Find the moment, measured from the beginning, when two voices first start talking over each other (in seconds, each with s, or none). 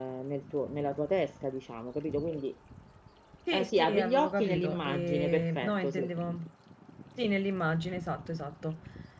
3.5 s